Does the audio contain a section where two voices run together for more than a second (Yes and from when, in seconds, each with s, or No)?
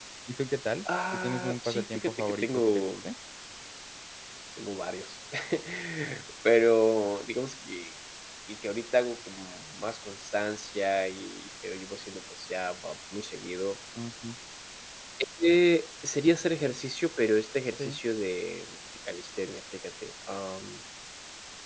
Yes, from 1.1 s